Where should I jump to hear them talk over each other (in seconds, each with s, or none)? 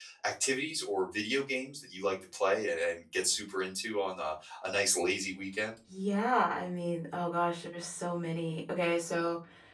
none